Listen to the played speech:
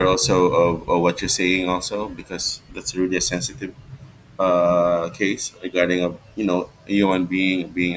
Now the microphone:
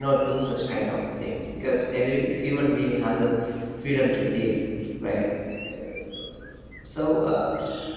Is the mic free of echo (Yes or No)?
Yes